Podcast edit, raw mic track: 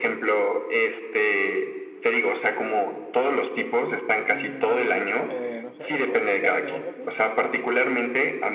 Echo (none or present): present